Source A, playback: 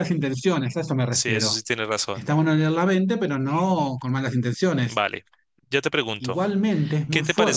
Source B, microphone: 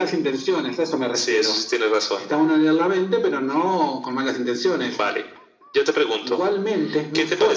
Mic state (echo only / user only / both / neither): echo only